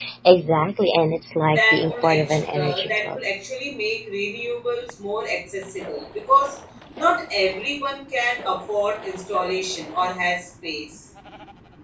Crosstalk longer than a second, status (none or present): present